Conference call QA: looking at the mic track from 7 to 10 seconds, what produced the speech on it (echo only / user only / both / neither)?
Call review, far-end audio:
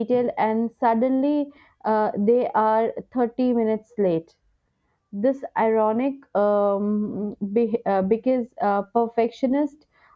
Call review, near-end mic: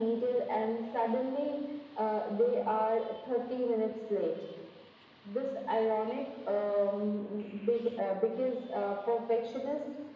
echo only